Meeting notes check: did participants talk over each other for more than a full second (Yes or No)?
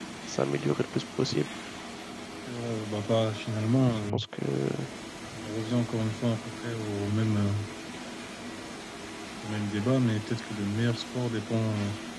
No